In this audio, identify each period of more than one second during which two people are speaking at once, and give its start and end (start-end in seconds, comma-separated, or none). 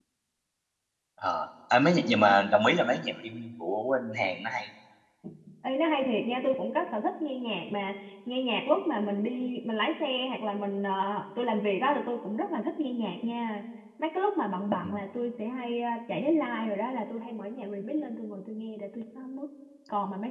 none